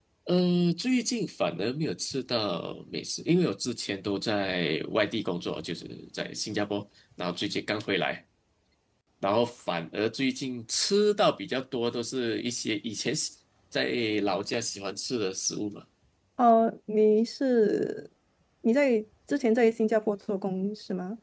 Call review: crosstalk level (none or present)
none